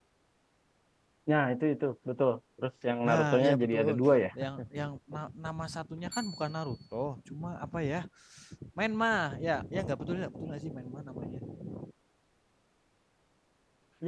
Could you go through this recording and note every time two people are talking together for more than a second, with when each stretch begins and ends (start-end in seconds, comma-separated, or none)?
3.0-4.3